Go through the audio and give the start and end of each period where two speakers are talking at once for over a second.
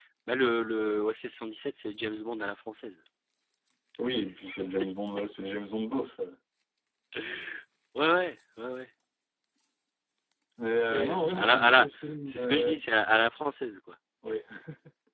10.9-12.7

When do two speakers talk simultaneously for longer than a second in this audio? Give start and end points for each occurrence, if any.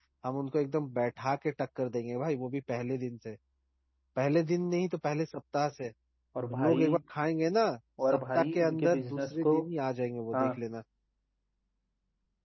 8.1-9.6

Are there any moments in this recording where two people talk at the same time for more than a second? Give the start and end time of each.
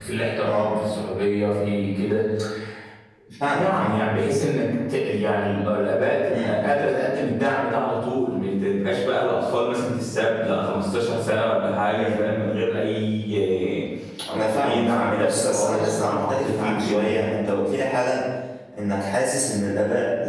14.6-17.1

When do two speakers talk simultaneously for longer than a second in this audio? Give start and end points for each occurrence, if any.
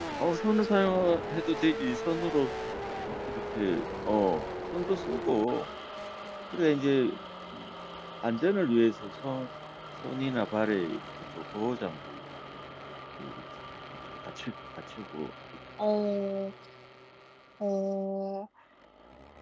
none

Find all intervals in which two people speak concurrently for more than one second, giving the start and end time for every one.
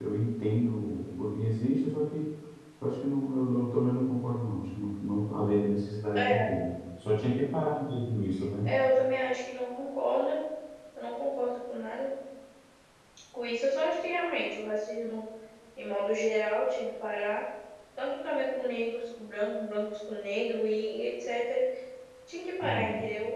none

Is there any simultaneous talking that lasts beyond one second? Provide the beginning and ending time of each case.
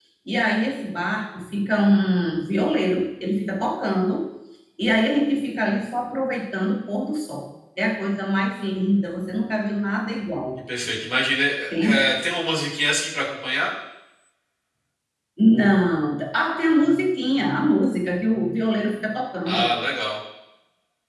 none

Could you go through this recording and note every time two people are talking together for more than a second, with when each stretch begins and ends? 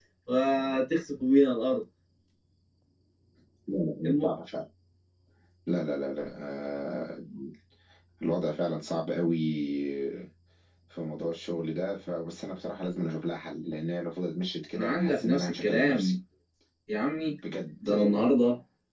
14.7-16.1

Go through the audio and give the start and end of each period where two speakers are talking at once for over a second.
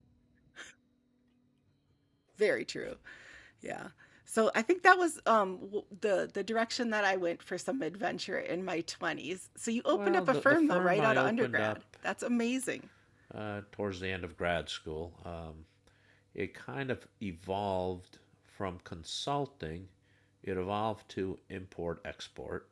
9.9-11.8

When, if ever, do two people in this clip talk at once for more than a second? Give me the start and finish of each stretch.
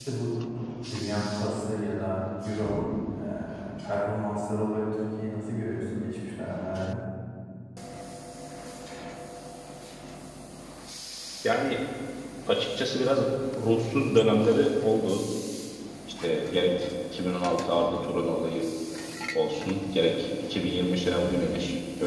none

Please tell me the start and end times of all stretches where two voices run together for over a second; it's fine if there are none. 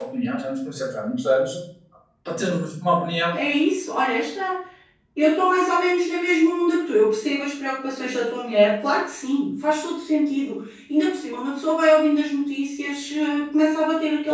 none

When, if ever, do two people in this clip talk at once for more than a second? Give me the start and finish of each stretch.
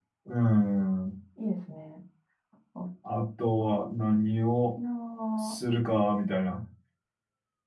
none

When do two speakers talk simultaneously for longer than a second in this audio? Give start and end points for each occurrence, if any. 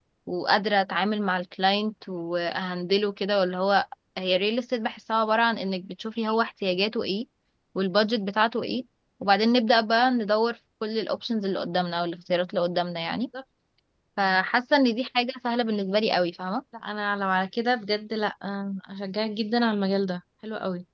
none

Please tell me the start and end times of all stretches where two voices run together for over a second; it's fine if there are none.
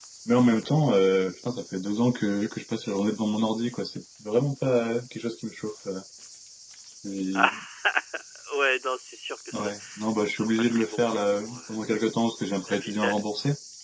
10.4-11.6

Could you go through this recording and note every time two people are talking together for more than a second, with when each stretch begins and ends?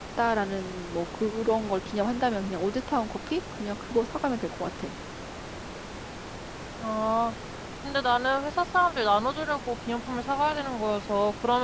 none

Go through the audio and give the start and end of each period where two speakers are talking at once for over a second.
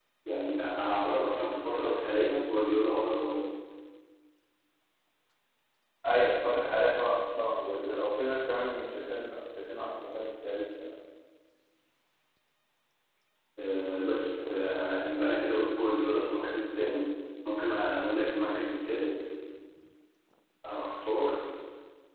none

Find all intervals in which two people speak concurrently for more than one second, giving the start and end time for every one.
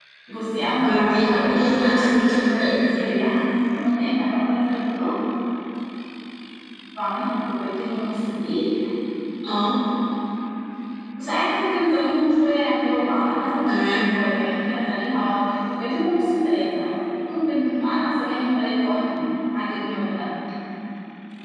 0.8-2.8

